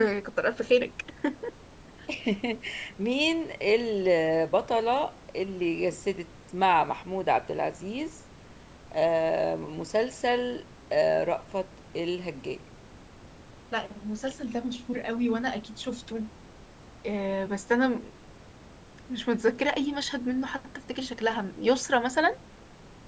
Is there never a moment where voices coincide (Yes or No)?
Yes